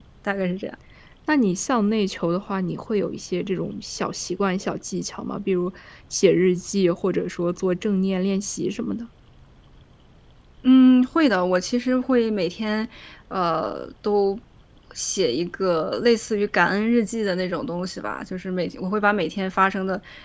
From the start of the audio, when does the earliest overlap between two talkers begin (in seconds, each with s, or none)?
none